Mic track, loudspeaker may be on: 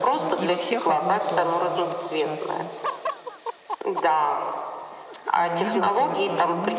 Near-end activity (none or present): present